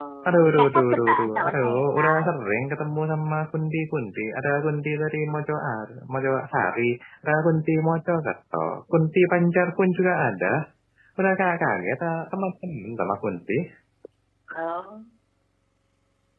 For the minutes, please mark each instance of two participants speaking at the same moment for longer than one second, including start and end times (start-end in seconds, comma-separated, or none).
0.5-2.2